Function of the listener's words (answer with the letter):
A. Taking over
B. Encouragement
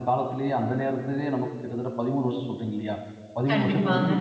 B